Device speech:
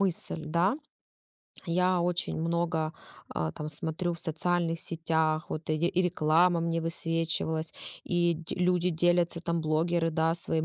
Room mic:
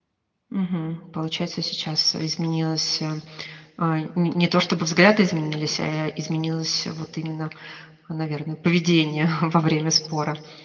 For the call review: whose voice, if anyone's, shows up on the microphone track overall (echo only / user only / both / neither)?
user only